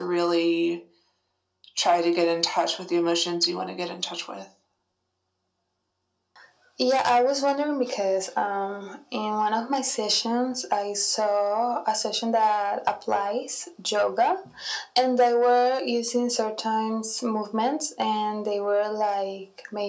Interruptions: none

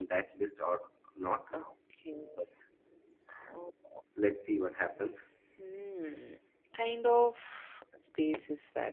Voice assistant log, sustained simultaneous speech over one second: none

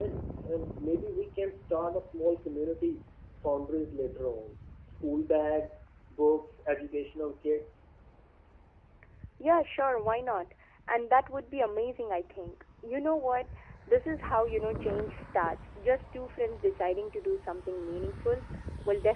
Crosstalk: none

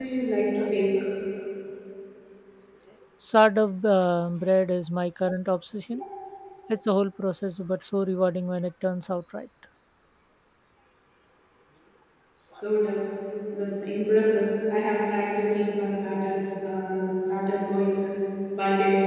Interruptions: none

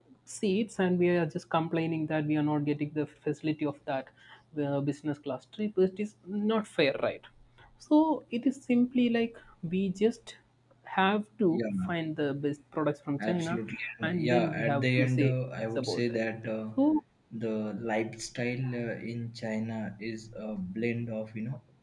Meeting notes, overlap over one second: present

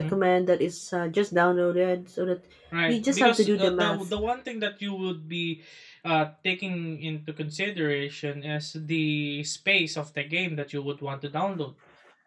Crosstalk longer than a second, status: present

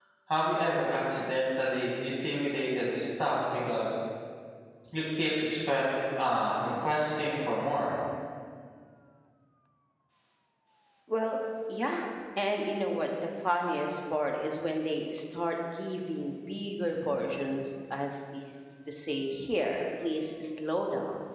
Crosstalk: none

